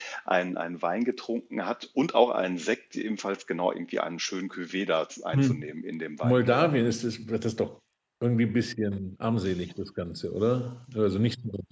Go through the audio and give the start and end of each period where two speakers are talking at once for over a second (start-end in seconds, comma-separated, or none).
none